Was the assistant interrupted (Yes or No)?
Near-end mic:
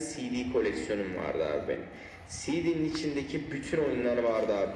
No